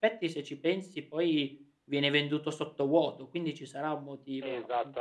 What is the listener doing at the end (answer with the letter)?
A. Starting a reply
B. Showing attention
A